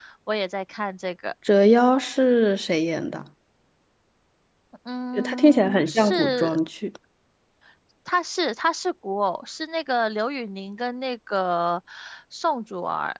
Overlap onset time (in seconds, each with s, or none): 5.1 s